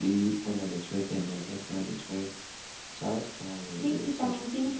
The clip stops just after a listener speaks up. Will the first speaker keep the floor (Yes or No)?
No